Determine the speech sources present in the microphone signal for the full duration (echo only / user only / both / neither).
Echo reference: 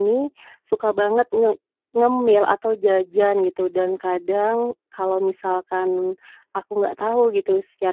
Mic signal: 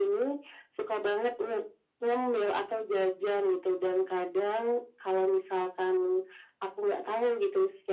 echo only